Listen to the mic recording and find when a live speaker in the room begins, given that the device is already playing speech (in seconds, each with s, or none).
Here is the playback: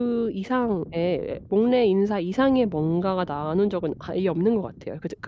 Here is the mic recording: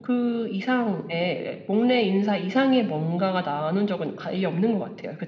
none